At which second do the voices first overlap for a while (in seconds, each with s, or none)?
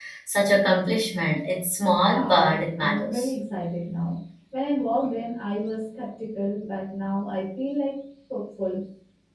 2.0 s